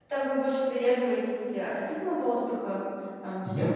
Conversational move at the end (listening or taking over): taking over